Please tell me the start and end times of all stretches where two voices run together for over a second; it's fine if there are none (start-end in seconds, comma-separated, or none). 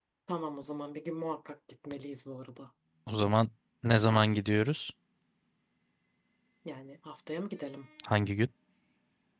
none